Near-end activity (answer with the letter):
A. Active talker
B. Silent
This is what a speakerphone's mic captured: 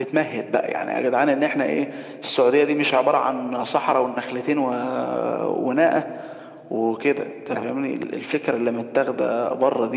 B